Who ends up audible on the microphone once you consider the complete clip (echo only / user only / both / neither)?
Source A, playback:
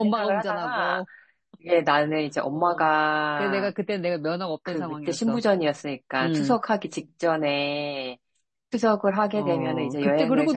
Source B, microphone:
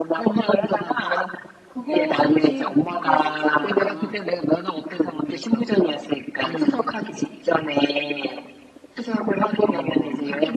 both